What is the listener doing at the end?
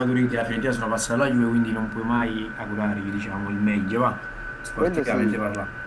taking over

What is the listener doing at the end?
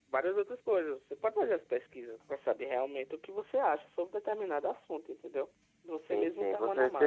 taking over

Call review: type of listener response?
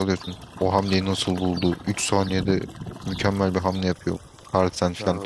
taking over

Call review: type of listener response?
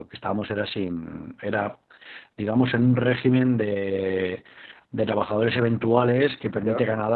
listening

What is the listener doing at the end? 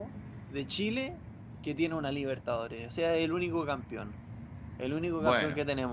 listening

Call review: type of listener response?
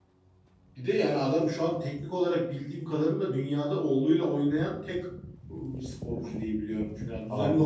listening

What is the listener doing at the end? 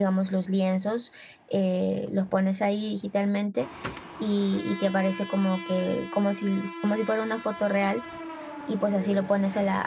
listening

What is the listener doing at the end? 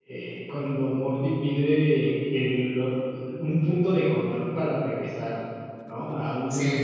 listening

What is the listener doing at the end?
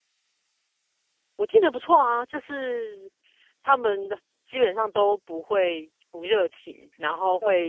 listening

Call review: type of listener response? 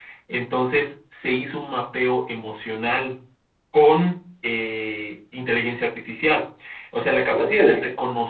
listening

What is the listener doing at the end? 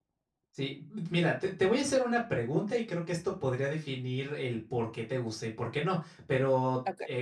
listening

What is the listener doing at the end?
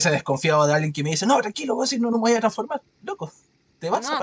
taking over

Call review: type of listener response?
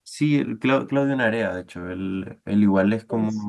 listening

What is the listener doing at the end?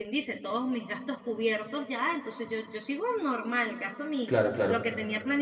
listening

